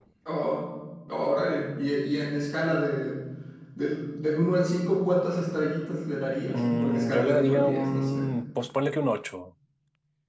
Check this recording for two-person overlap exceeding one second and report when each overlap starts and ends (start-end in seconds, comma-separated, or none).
6.5-8.2